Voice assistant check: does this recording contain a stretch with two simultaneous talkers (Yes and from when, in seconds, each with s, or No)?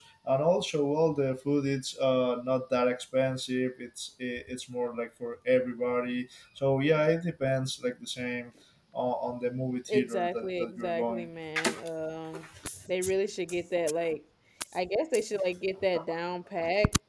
Yes, from 9.9 s